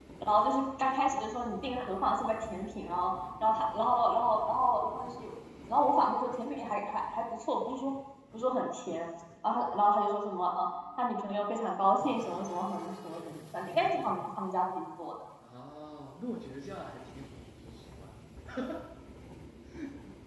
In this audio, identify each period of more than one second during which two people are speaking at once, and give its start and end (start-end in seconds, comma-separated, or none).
none